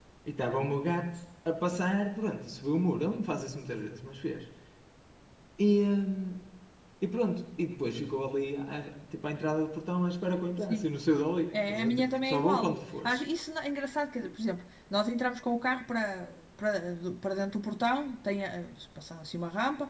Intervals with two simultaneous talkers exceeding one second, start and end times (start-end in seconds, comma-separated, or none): 11.7-13.2